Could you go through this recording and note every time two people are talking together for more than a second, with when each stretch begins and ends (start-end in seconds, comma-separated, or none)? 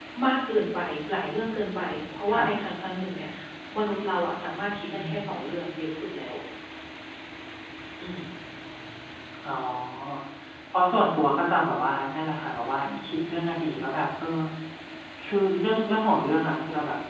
none